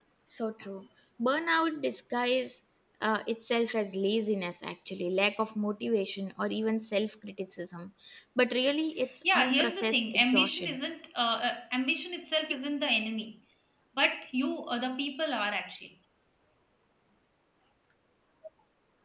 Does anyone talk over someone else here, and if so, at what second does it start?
9 s

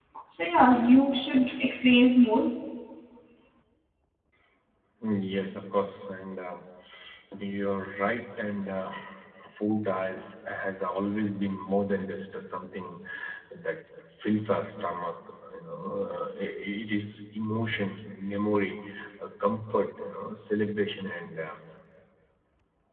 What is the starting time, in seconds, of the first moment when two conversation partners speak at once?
none

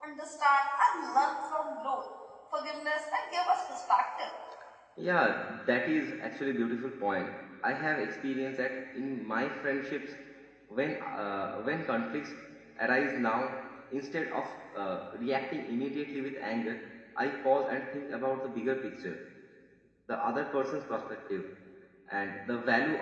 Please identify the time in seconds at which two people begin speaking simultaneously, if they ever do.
none

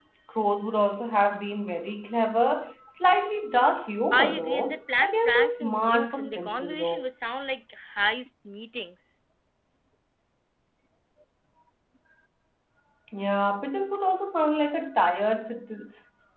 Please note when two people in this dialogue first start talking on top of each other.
4 s

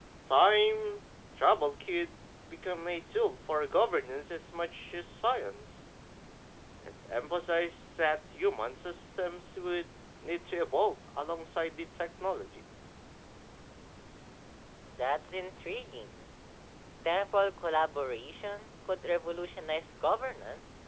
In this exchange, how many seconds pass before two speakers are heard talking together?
none

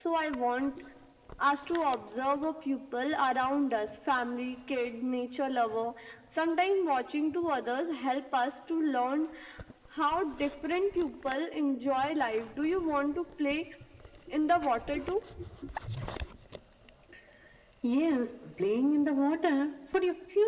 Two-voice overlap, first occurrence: none

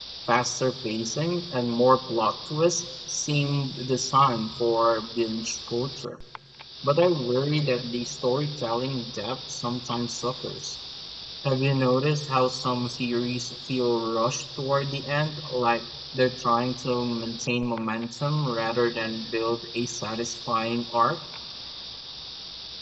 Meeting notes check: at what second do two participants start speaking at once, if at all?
none

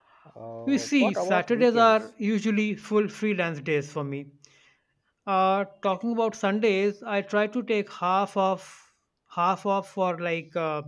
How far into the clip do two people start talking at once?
1 s

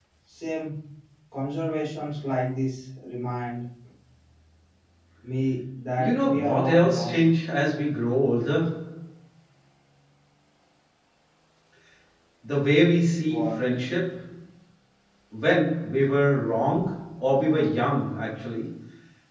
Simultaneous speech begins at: 6 s

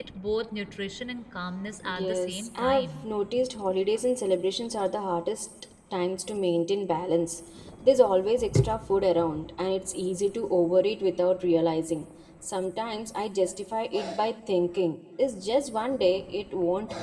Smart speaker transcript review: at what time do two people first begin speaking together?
2 s

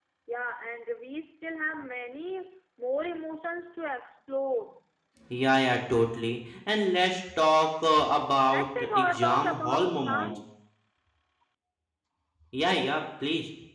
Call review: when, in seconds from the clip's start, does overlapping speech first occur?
8 s

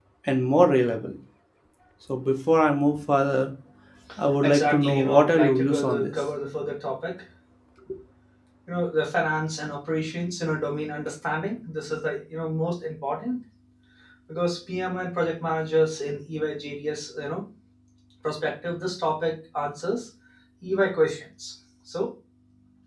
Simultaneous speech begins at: 4 s

